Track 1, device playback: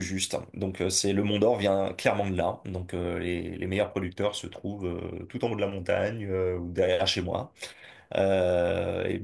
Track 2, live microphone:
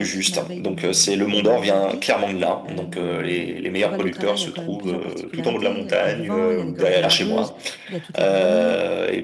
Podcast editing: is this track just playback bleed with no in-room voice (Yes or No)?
No